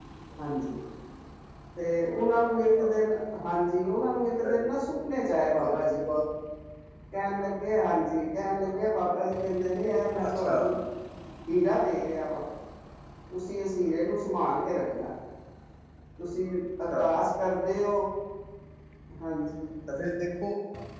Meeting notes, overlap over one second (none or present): none